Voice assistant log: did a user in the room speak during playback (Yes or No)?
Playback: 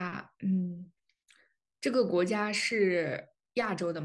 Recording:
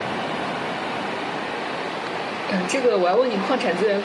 Yes